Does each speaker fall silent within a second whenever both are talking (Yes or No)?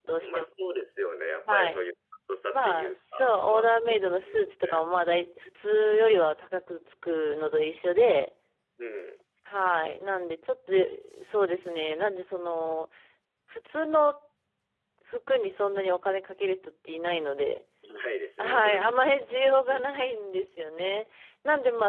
No